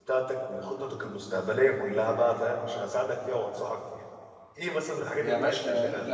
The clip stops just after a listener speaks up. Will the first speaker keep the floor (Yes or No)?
No